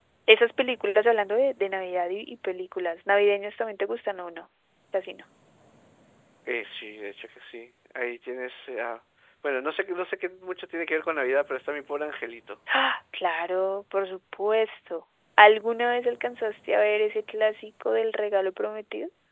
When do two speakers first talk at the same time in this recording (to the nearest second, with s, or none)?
none